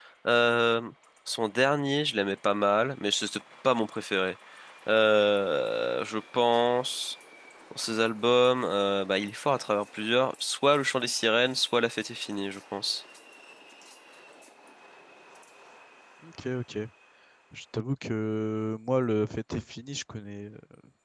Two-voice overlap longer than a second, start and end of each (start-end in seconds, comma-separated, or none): none